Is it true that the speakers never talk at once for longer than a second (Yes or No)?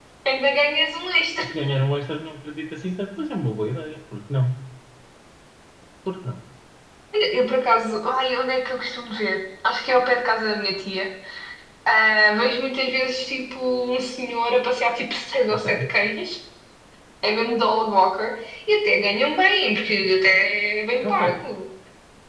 Yes